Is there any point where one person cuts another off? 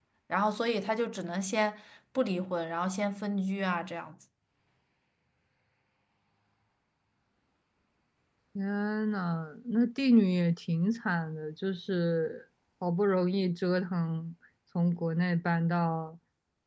No

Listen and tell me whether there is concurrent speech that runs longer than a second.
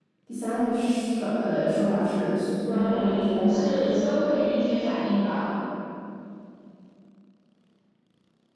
Yes, from 2.7 s

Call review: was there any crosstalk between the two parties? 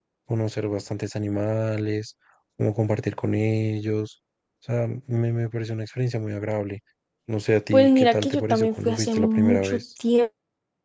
Yes, from 7.7 s

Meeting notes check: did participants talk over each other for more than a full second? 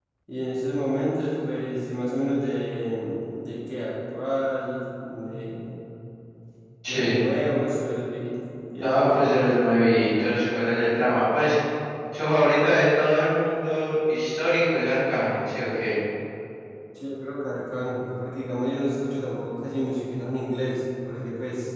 No

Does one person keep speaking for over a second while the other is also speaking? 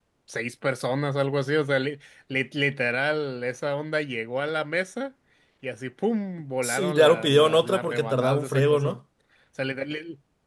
Yes, from 6.6 s

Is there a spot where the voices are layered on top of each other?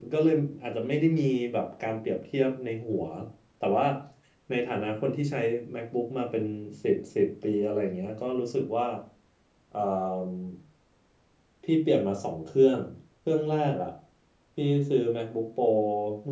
No

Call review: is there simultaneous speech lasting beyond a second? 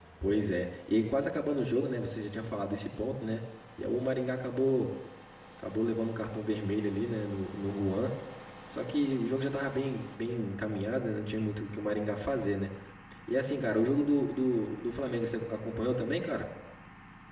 No

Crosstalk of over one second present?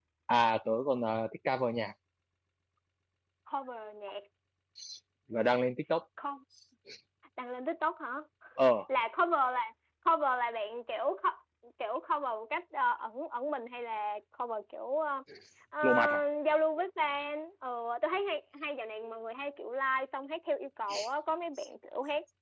No

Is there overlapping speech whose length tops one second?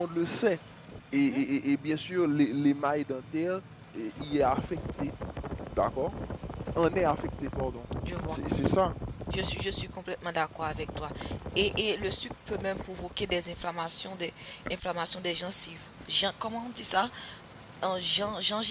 No

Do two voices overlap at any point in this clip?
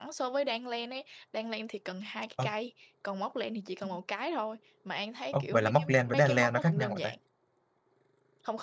Yes, from 5.3 s

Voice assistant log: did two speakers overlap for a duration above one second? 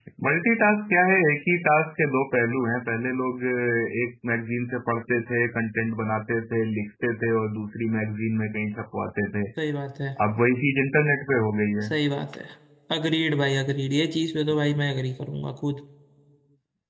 No

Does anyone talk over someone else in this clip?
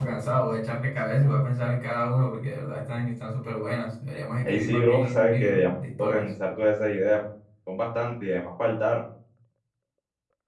Yes, from 4.4 s

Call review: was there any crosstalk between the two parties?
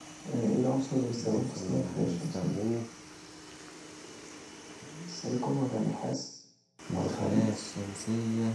Yes, from 1.2 s

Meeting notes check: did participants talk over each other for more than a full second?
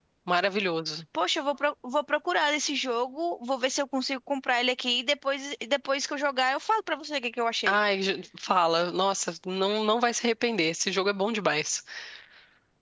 No

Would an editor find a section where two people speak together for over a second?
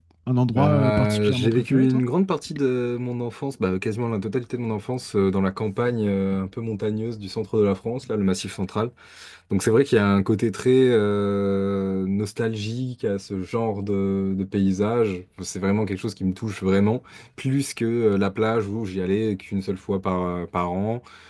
Yes, from 0.5 s

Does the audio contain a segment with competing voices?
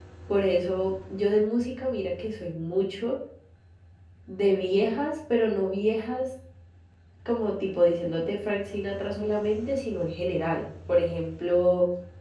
No

